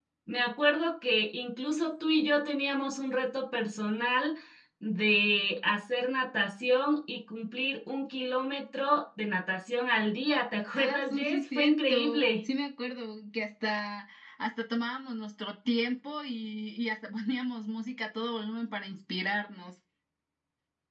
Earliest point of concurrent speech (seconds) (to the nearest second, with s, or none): 11 s